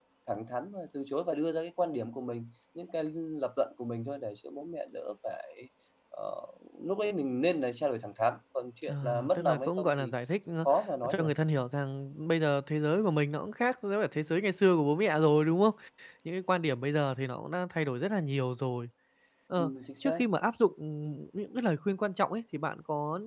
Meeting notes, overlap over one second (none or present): present